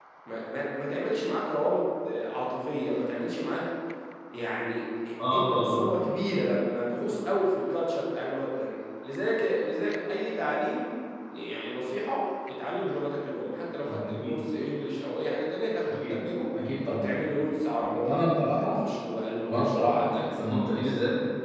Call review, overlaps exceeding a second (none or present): present